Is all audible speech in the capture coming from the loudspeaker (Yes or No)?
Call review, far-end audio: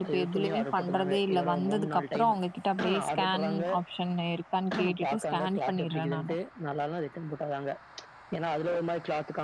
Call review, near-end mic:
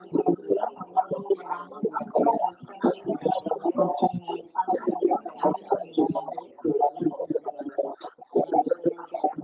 Yes